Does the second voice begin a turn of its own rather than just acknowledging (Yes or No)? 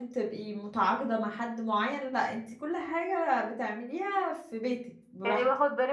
Yes